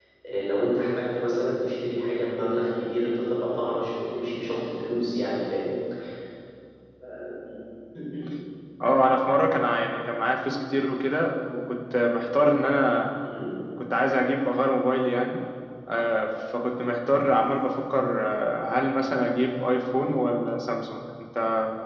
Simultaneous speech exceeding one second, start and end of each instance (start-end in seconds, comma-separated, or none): none